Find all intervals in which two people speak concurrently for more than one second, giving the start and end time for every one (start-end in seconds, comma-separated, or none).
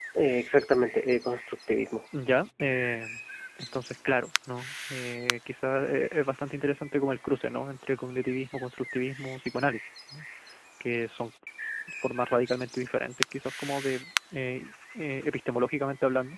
none